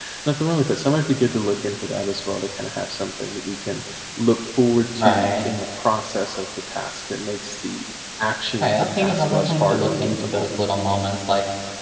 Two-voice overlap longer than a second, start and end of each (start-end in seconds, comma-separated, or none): 8.6-10.5